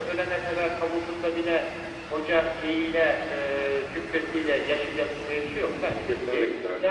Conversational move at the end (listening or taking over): listening